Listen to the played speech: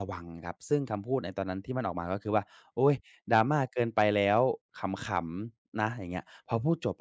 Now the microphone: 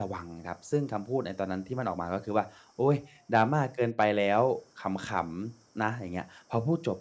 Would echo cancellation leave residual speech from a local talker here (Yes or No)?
No